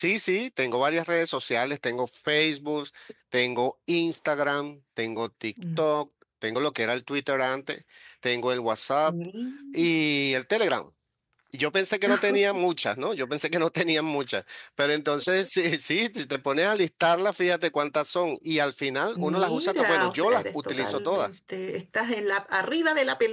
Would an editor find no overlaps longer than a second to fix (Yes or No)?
No